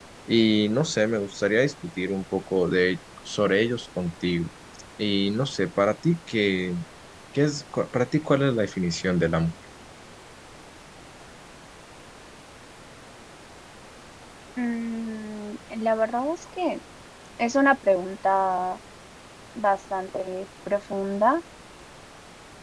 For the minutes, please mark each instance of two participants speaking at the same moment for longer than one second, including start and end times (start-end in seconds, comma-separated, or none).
none